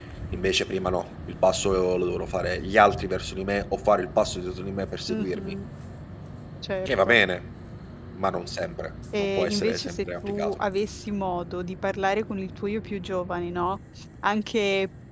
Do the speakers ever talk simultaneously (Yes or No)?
Yes